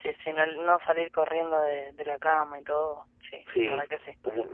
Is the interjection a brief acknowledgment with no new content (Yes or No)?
No